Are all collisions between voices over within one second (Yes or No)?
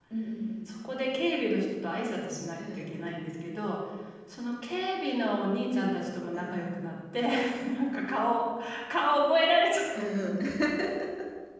Yes